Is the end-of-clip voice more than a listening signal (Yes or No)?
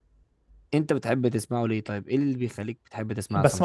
Yes